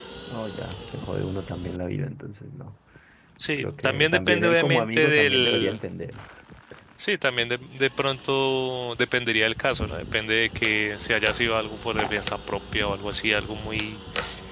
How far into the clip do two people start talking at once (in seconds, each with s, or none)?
3.6 s